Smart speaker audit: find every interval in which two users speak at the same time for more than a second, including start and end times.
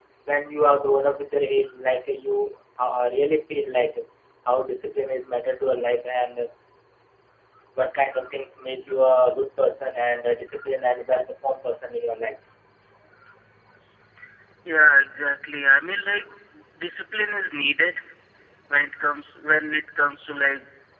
none

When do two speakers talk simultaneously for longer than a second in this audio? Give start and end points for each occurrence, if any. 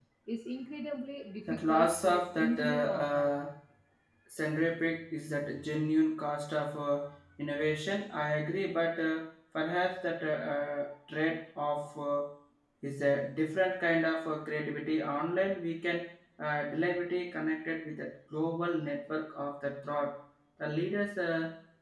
1.5-3.4

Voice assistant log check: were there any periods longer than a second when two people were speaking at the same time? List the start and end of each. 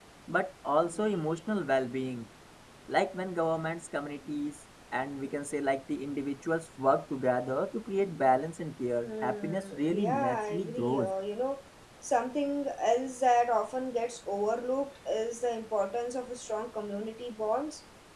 9.0-11.1

